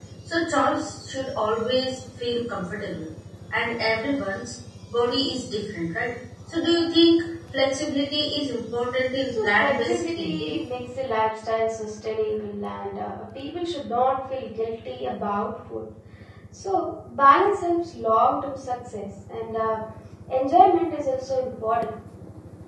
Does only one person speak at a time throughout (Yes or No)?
No